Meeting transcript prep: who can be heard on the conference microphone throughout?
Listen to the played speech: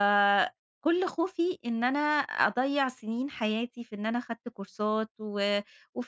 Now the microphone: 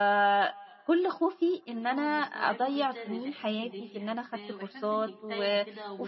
both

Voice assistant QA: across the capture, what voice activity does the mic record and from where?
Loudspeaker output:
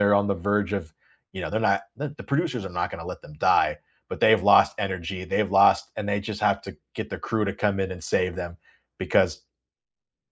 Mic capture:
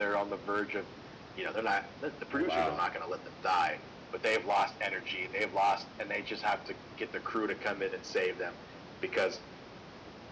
both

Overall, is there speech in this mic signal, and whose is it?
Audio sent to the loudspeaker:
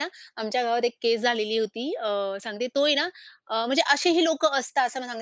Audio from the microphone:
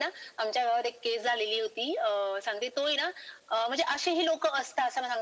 echo only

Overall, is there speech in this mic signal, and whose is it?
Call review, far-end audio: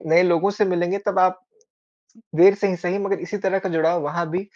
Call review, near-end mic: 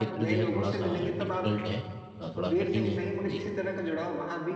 both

